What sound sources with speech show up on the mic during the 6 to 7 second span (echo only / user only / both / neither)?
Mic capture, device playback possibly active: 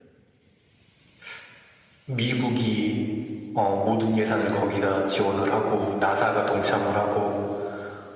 echo only